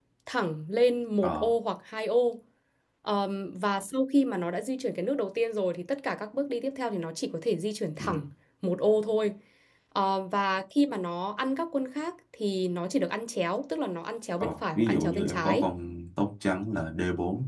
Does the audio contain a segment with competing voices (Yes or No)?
Yes